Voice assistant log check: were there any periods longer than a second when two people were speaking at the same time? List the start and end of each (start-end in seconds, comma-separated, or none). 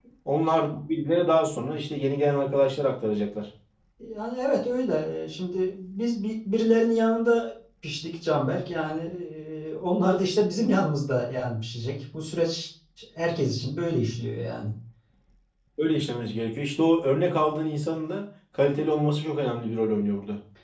none